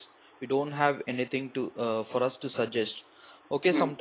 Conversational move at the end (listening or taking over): listening